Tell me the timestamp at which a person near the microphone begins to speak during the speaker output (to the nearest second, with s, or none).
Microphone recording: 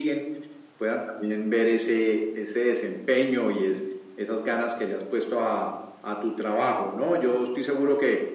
none